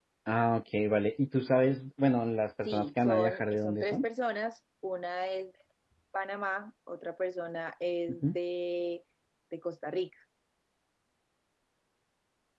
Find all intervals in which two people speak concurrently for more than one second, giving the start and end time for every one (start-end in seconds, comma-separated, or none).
2.6-4.0